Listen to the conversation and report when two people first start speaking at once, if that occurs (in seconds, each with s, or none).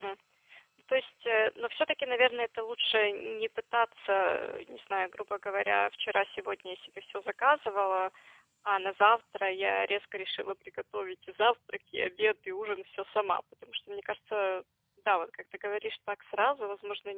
none